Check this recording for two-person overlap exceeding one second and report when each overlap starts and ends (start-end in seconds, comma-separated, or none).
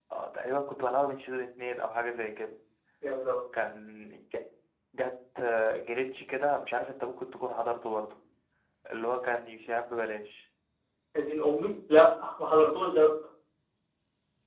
none